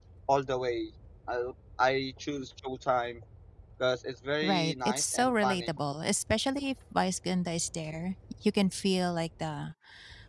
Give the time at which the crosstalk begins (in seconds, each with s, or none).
4.4 s